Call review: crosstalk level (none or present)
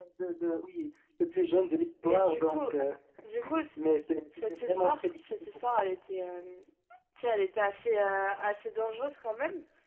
present